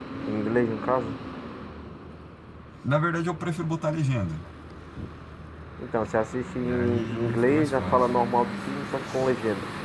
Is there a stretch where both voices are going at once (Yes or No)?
Yes